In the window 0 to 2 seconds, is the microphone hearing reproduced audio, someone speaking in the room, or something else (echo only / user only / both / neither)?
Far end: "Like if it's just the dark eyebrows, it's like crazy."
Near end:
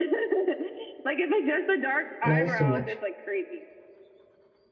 echo only